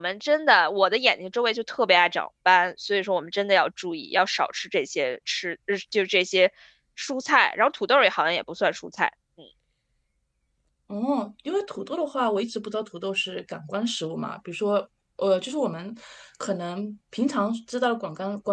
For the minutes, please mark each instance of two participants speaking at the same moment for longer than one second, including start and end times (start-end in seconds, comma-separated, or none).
none